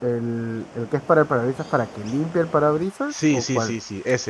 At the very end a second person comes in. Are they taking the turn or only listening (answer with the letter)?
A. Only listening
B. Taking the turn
B